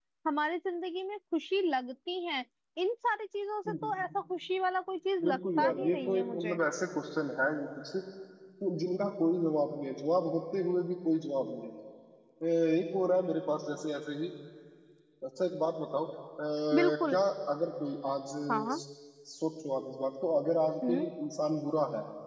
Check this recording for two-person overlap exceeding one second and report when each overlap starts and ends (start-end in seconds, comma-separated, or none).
5.2-6.6